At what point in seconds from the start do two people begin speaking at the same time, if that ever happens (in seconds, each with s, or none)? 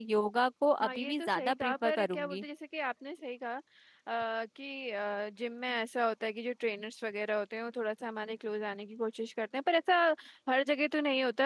0.8 s